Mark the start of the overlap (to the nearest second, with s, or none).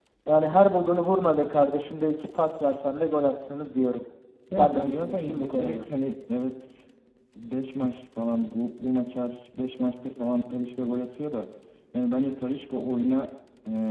5 s